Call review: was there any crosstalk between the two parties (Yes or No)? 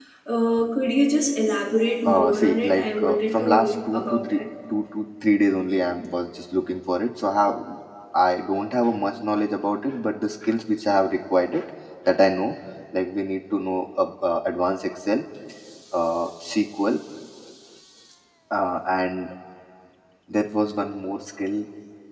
Yes